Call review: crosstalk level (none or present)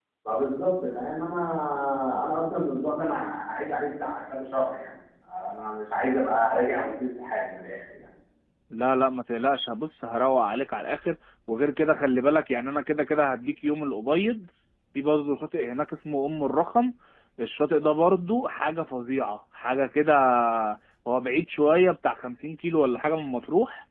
none